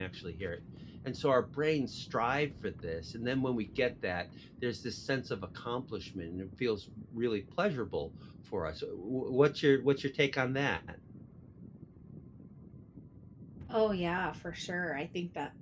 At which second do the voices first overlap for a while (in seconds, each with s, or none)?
none